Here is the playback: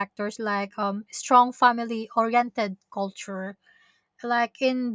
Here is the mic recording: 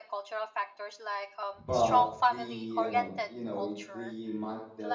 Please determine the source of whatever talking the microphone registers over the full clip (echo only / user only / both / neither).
both